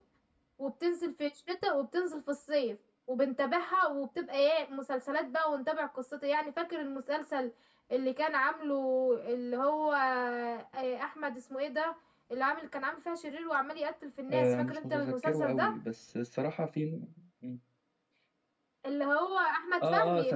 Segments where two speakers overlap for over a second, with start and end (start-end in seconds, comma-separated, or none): 14.3-15.7